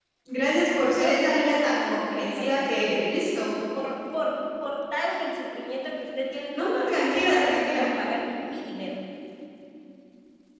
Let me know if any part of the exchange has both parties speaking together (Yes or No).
Yes